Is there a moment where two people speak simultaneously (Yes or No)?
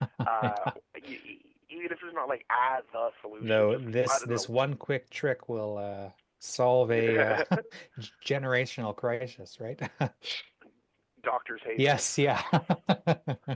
Yes